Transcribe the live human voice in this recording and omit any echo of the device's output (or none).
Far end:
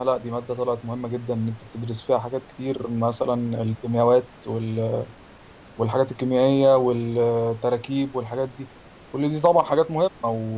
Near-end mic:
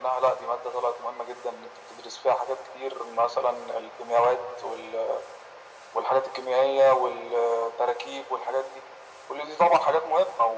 none